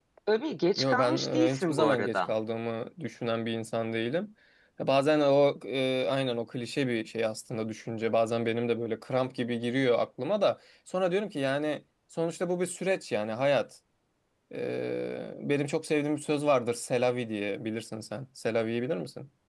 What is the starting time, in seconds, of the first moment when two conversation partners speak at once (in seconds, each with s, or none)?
0.8 s